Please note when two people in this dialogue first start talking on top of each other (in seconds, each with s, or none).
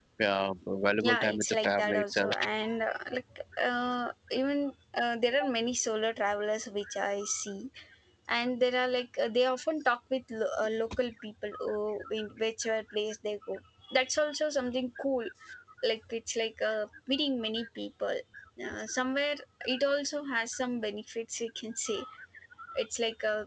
1.0 s